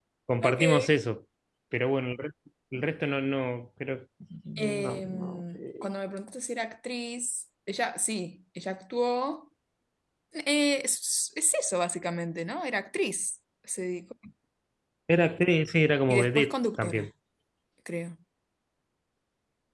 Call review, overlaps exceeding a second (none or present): present